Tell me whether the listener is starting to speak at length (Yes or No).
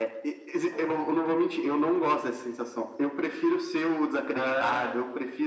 No